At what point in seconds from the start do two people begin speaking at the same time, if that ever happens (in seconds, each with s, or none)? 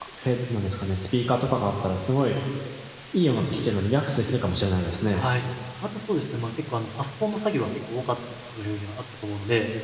none